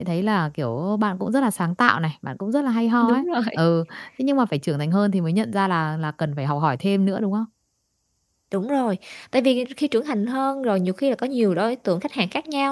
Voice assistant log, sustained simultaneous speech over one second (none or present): none